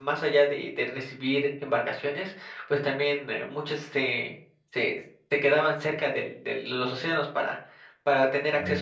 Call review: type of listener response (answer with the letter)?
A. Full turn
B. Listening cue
B